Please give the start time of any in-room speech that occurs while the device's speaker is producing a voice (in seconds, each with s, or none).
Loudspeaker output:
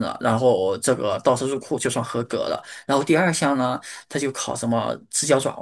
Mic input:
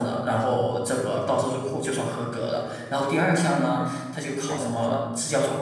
3.7 s